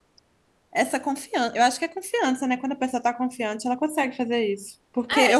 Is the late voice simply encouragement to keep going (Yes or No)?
Yes